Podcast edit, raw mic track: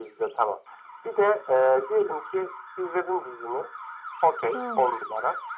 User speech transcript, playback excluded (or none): Sağ ol.